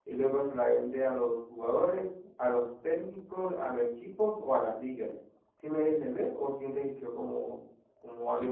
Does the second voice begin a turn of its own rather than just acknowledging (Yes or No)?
Yes